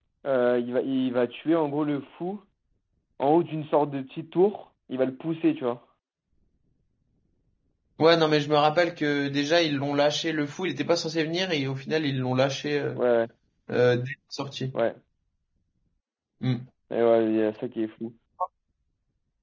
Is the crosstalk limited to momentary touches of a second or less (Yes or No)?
Yes